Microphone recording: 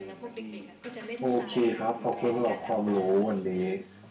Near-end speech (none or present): present